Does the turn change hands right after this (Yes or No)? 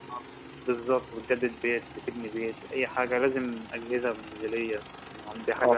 Yes